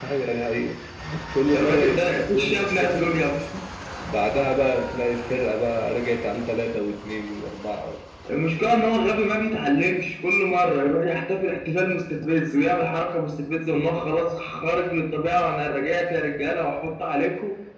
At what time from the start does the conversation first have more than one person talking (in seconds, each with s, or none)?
1.5 s